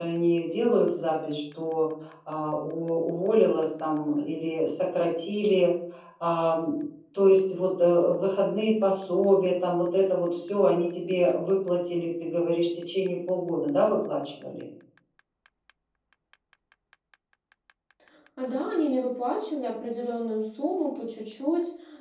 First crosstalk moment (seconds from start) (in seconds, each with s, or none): none